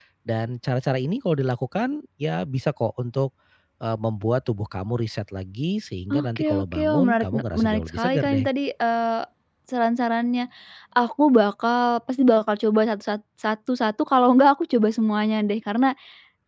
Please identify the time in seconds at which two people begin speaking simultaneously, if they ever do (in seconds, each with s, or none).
6.1 s